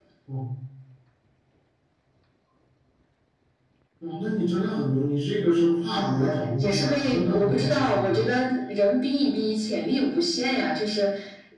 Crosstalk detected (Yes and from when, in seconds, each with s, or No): Yes, from 5.9 s